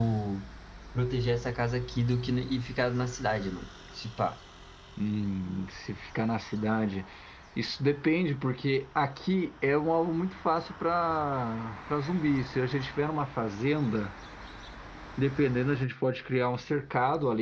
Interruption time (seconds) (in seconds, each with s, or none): none